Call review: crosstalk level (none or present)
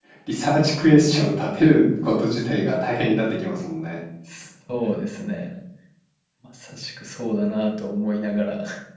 none